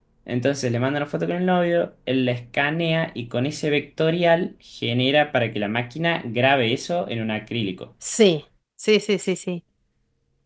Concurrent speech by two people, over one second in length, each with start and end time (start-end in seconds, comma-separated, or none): none